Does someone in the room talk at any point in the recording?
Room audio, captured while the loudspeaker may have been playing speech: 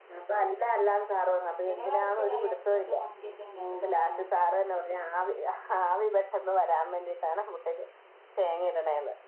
Yes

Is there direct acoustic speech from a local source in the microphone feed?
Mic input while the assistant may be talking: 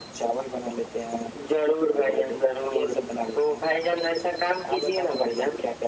No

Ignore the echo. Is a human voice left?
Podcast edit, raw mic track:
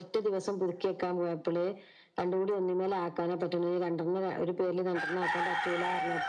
No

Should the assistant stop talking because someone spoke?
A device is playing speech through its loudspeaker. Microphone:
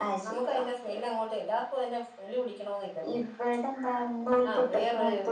Yes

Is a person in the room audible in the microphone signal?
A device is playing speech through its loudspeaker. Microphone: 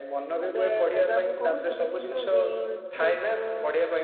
Yes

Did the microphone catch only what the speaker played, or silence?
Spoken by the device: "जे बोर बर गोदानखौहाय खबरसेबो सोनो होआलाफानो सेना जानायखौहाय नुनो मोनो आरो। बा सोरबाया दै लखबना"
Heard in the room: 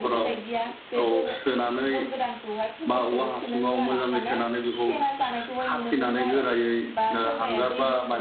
No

